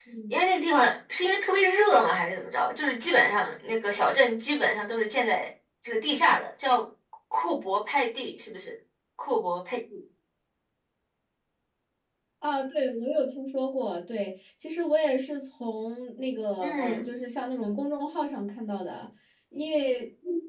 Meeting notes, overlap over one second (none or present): none